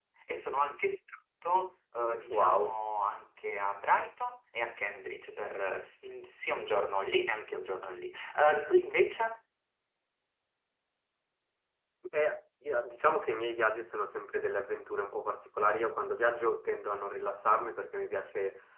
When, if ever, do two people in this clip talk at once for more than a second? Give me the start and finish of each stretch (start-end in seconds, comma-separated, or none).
none